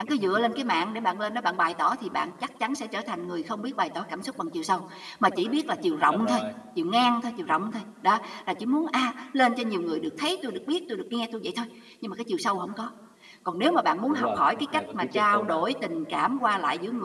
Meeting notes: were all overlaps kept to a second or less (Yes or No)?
No